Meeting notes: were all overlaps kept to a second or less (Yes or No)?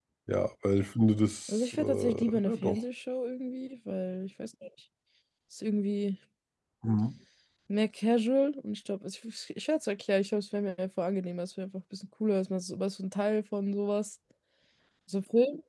No